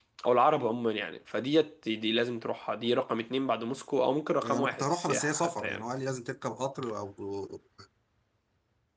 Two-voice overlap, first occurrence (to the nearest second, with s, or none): 4 s